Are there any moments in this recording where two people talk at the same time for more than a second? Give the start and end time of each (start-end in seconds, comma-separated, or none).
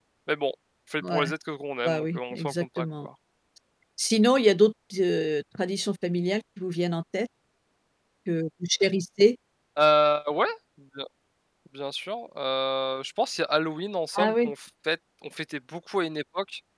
1.8-3.1